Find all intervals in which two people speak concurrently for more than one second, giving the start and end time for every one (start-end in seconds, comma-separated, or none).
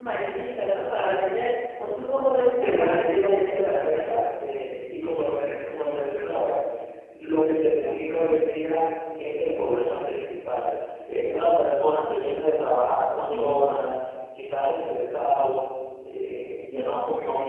2.6-4.1